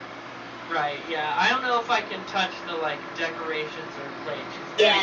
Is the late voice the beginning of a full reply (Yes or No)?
Yes